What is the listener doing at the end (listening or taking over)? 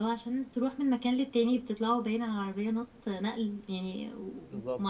taking over